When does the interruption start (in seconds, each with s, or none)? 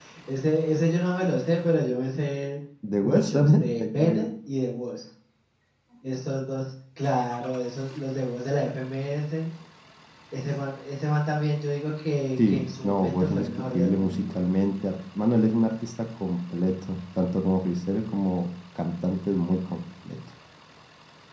3.0 s